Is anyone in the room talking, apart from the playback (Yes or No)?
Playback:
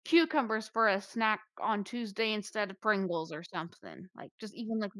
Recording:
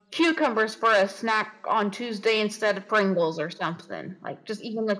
No